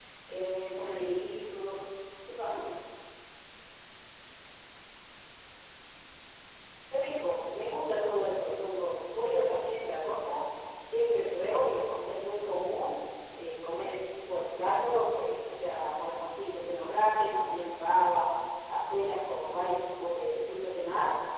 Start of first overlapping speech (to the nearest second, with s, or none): none